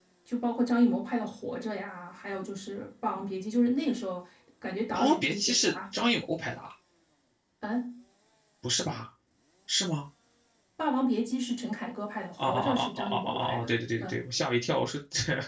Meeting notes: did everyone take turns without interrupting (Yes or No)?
No